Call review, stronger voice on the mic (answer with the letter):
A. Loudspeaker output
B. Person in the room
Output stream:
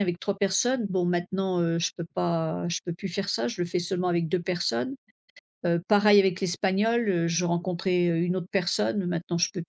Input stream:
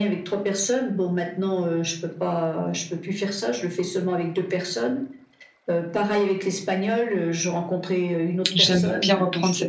B